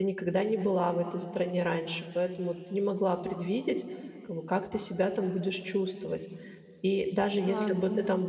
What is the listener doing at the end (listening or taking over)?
listening